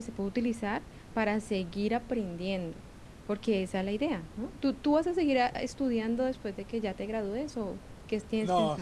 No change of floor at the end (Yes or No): No